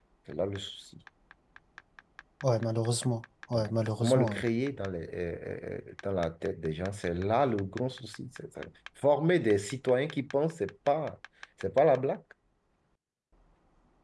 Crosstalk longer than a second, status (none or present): none